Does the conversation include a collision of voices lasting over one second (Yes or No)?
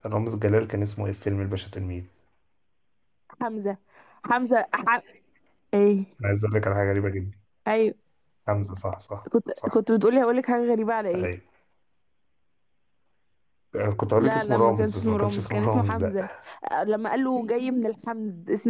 Yes